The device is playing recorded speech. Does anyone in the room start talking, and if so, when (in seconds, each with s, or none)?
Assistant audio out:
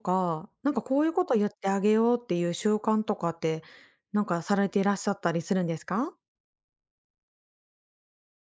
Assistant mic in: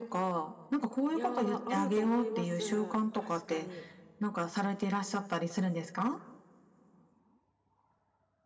1.1 s